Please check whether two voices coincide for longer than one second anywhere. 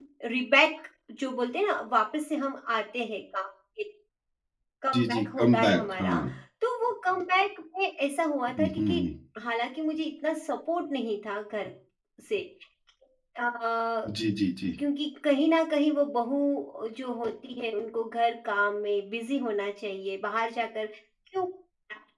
Yes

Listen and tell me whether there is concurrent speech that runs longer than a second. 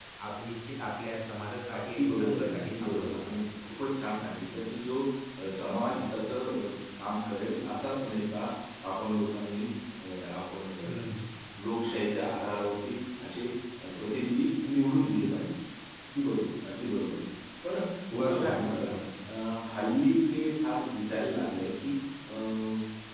Yes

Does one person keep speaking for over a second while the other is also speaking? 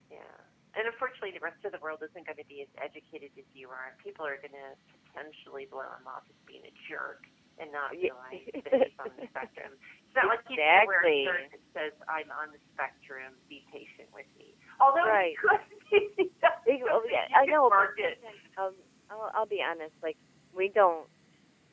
Yes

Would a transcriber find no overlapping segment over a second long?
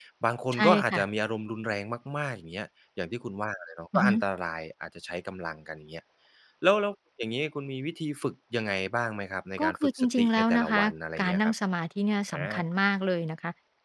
No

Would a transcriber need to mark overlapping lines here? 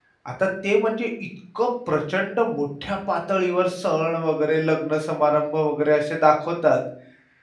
No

